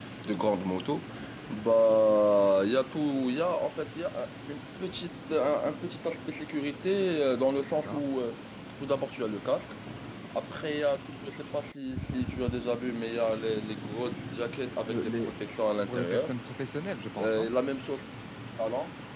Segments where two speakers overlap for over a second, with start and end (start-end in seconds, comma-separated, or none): none